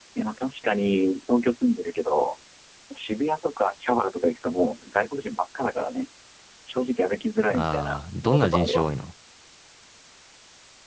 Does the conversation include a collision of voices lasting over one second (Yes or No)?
Yes